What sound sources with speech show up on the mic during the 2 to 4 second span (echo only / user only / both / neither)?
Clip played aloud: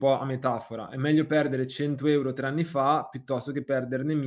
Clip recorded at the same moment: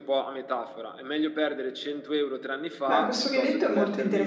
both